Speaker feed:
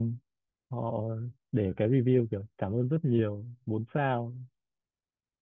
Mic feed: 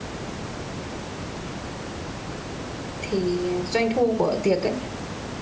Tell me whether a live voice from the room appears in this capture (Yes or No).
Yes